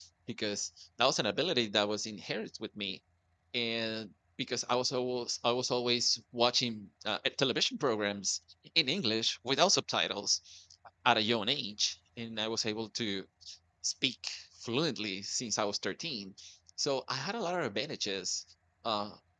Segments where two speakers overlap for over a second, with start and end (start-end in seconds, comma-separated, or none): none